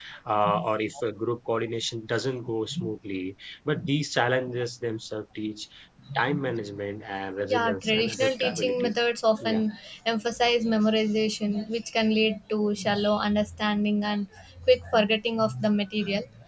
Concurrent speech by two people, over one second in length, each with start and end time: 7.5-9.0

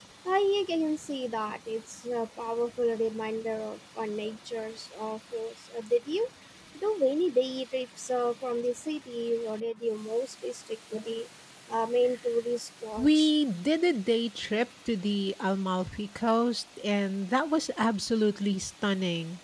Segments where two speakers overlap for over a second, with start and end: none

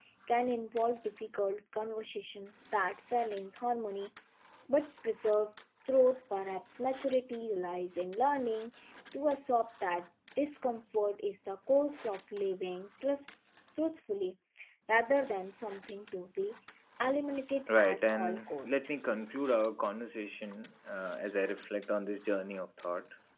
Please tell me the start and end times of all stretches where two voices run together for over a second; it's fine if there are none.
17.7-18.9

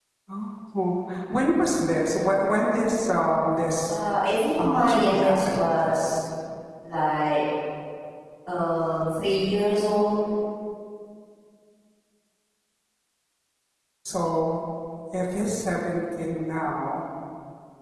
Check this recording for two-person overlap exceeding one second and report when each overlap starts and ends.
4.6-5.8

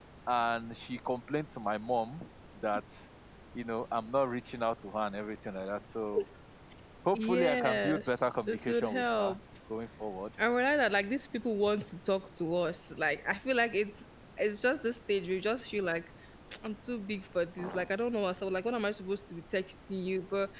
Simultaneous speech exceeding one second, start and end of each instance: 7.1-9.3

